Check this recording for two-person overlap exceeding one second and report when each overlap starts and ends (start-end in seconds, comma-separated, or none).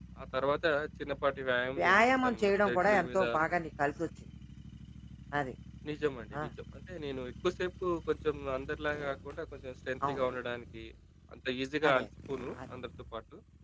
1.8-3.2